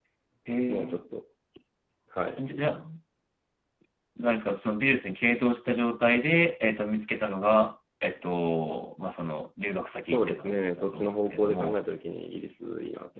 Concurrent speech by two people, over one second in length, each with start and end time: 10.0-11.8

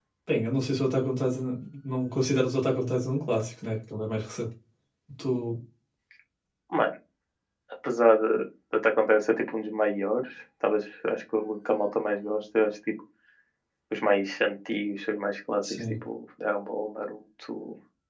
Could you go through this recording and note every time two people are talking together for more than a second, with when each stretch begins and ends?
none

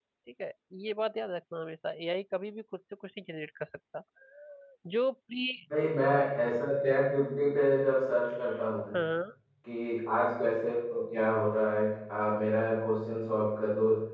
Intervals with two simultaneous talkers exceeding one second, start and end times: none

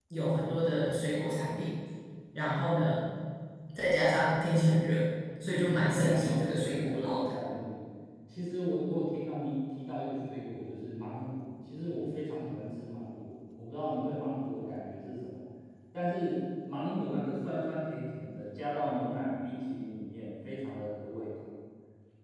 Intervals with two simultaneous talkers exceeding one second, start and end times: 5.4-7.3

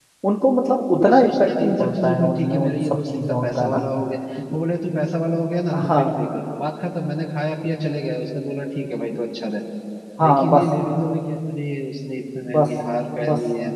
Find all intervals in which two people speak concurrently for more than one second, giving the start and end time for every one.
1.0-3.9

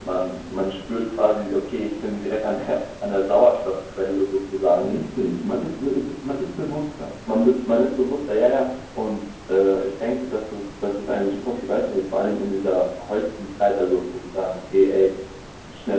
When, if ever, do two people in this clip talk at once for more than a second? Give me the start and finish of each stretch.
none

